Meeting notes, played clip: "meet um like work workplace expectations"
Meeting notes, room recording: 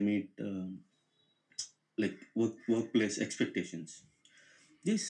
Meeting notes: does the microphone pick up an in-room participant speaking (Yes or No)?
No